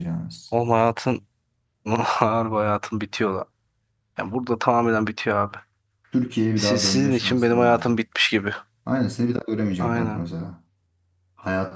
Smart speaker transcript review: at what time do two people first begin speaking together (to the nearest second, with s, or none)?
7 s